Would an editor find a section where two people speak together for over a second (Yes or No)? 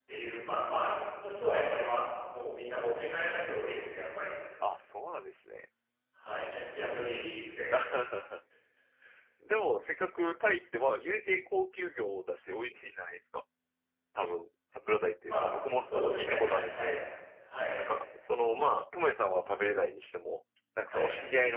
Yes